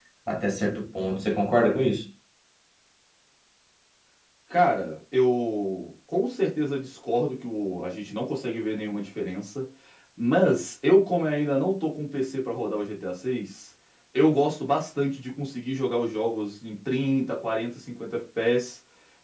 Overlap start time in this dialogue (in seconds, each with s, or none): none